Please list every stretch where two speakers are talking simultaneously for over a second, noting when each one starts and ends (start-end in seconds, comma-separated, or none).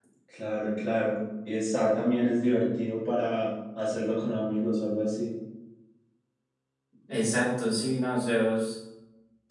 none